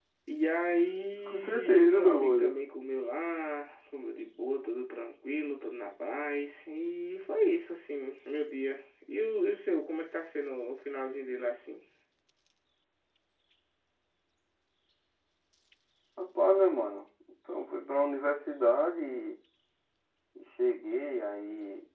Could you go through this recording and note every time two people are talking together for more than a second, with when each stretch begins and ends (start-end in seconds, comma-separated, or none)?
1.3-2.6